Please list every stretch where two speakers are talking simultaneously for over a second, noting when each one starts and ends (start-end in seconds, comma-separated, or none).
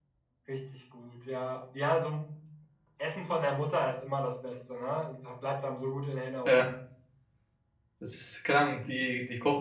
none